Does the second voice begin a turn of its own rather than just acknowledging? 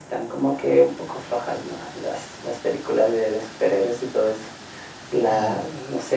No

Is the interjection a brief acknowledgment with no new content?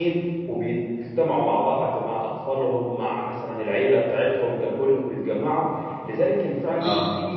Yes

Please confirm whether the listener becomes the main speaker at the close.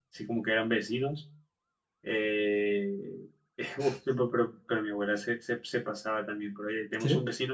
No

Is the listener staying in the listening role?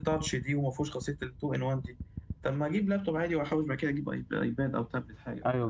No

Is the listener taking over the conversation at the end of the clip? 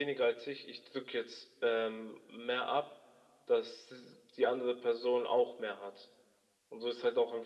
Yes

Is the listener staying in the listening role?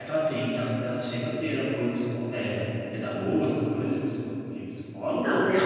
No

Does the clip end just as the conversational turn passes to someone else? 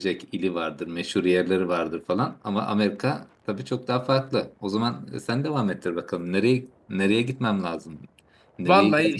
Yes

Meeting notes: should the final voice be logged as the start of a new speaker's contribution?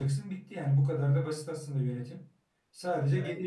No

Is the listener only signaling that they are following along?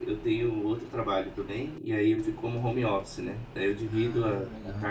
Yes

